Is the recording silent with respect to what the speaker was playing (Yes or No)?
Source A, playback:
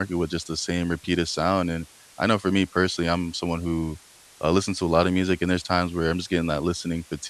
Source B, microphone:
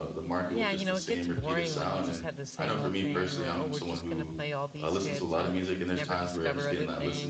No